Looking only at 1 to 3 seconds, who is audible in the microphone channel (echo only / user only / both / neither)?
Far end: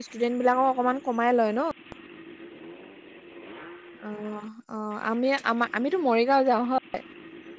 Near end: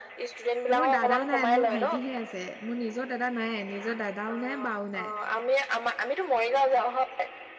both